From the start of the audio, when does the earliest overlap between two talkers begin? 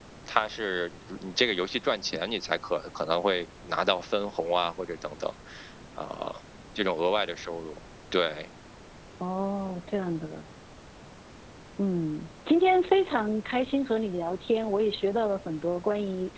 none

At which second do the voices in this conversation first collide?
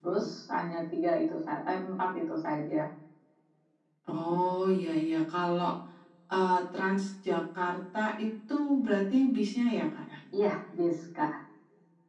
none

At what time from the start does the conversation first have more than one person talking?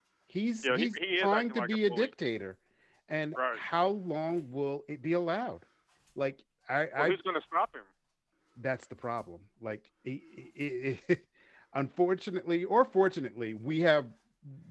1 s

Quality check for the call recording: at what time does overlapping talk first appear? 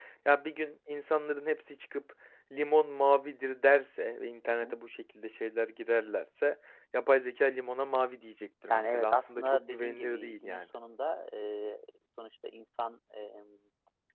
9 s

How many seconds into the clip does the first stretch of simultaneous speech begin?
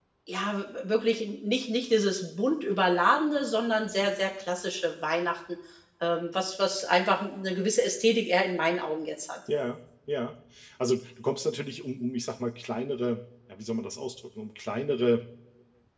none

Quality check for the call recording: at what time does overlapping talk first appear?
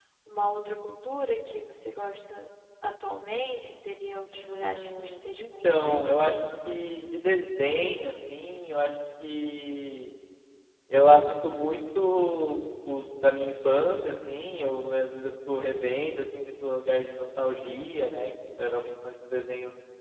4 s

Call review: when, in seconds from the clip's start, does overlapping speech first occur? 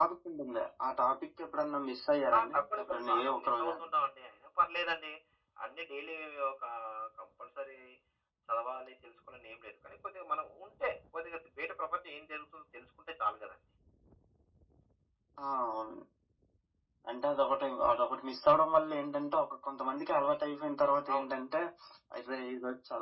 2 s

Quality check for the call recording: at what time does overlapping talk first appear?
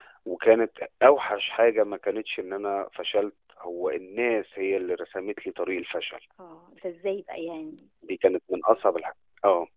none

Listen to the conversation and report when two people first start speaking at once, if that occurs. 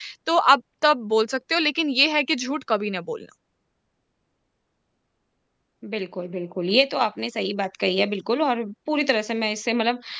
none

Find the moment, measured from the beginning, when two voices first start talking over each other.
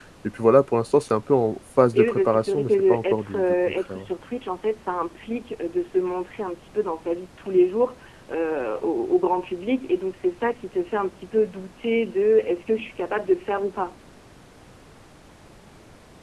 2 s

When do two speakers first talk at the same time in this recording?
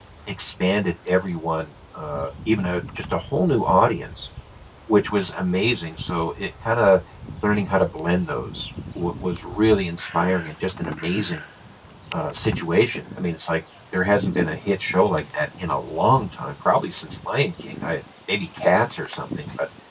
none

